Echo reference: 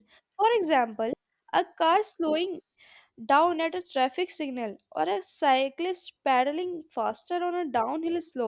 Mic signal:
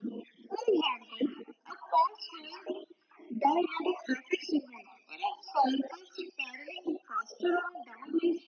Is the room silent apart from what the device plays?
Yes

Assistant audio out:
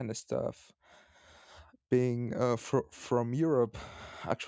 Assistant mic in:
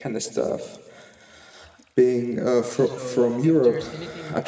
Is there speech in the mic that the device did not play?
Yes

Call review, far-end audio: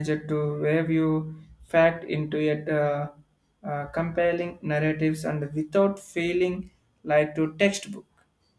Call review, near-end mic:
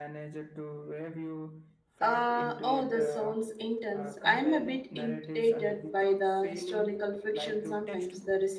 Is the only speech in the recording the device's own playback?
No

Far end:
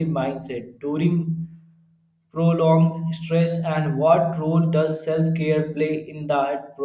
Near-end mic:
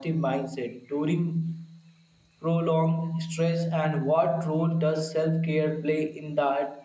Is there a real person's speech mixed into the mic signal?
No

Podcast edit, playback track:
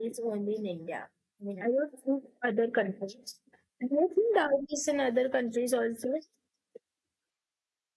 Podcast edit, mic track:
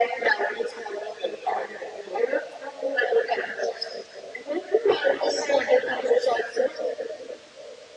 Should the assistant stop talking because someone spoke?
No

